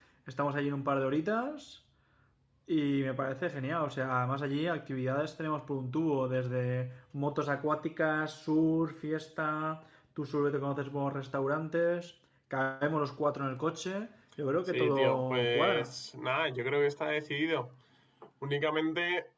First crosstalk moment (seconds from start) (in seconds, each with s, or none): 14.7 s